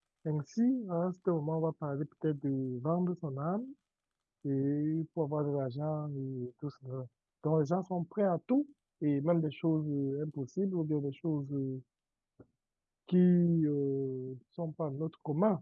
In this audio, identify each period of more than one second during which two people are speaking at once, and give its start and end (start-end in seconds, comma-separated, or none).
none